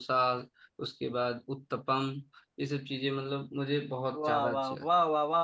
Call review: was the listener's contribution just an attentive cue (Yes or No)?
No